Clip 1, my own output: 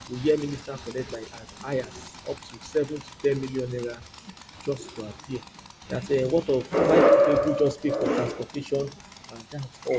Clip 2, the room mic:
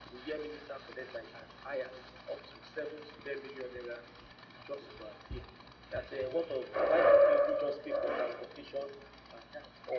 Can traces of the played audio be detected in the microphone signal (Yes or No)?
Yes